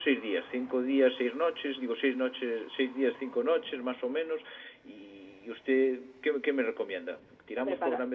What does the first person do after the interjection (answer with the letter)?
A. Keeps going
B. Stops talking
A